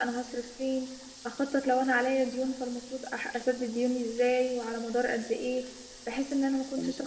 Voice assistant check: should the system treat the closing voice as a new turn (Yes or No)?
No